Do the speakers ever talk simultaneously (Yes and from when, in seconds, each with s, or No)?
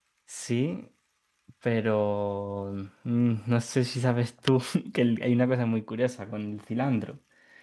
No